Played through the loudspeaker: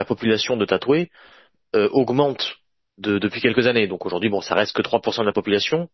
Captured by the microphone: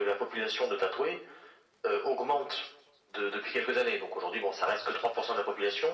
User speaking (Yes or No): No